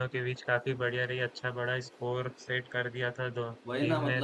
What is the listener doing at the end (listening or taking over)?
taking over